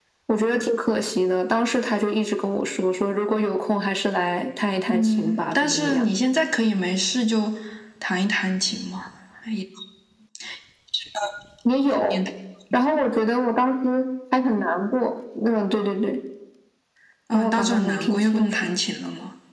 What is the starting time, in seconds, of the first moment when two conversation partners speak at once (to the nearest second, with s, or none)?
5 s